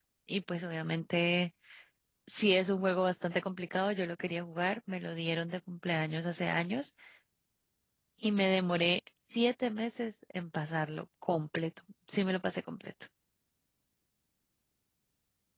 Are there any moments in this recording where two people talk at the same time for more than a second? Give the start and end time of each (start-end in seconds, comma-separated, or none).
none